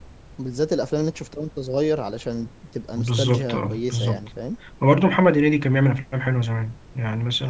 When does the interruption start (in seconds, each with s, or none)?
3.0 s